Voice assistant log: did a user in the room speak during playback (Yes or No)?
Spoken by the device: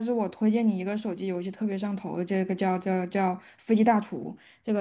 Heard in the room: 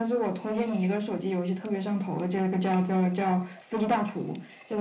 No